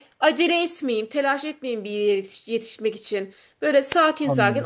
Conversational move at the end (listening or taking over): listening